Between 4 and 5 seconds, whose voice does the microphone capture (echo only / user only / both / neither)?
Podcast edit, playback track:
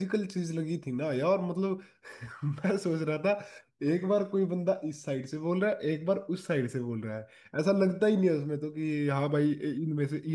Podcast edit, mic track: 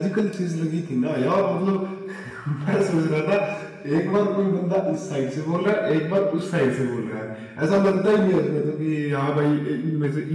echo only